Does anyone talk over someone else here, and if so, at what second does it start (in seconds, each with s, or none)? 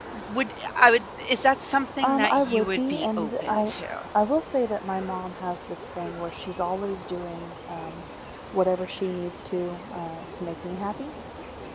2.0 s